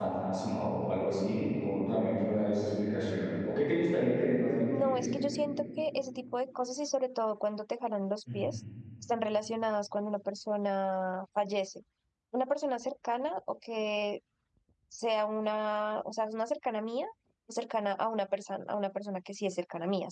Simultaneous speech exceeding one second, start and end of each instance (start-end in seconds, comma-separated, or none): none